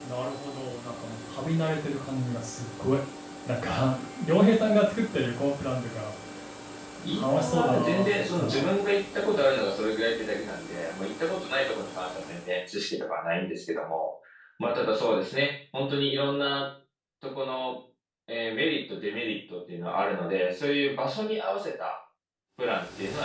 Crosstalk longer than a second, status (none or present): present